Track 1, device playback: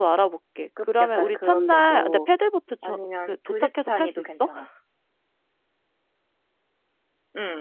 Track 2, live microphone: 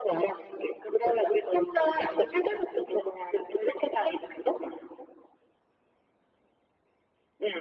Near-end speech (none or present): none